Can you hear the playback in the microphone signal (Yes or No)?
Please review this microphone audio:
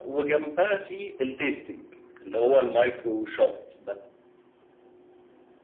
Yes